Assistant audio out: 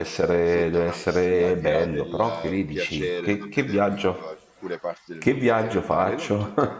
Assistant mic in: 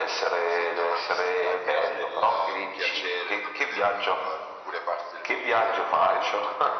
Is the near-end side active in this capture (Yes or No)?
No